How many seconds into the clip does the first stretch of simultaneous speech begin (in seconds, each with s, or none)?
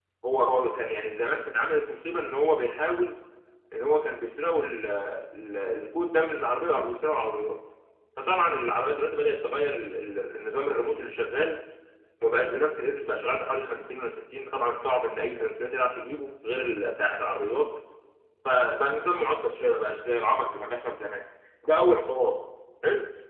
none